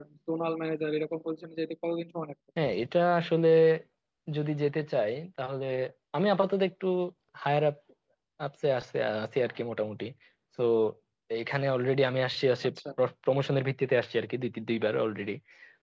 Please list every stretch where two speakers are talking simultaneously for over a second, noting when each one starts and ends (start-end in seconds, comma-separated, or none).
none